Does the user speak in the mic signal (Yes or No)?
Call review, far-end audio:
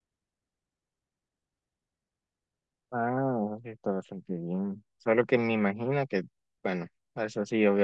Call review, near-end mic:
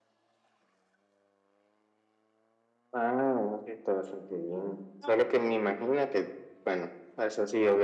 Yes